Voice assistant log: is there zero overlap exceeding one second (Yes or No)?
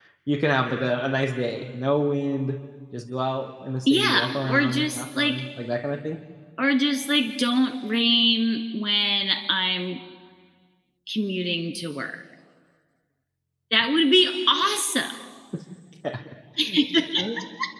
No